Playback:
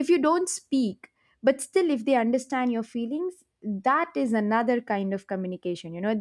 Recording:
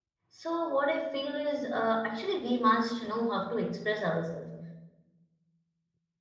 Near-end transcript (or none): So what I feel is uh, actually we must know how to express ourselves.